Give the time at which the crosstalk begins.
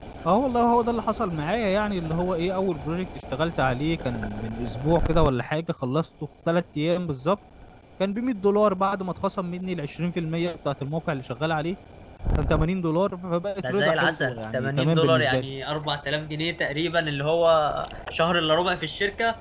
13.6 s

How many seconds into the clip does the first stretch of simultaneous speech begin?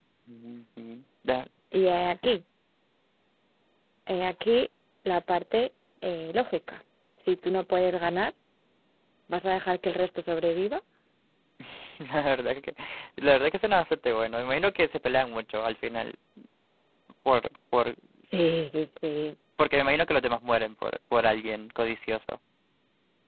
none

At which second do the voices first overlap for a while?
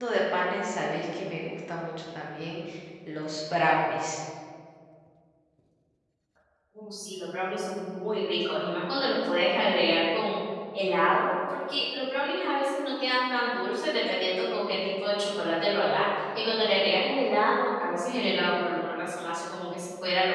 none

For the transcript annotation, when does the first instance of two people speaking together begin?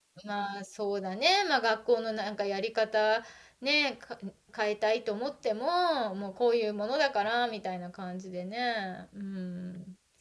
none

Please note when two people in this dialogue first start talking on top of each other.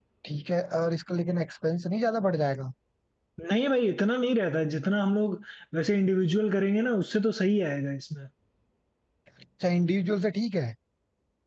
none

